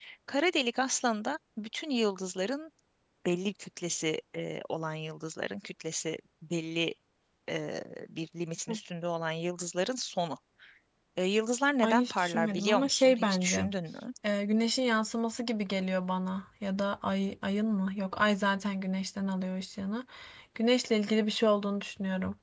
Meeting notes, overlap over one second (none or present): present